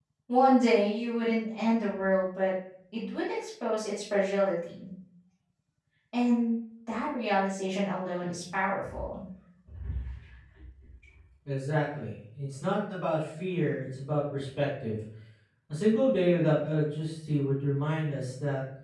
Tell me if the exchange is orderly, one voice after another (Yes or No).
Yes